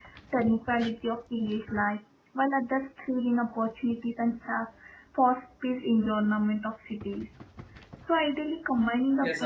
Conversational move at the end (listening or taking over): listening